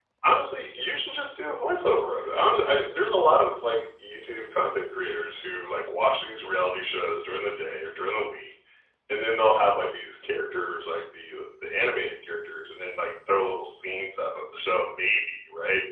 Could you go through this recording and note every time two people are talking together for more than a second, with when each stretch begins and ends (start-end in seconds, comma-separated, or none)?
none